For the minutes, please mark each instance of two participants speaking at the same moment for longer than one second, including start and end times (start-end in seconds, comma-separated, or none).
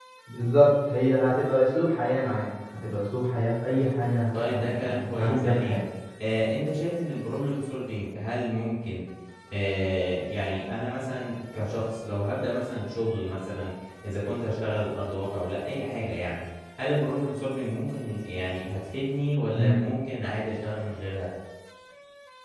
4.4-5.8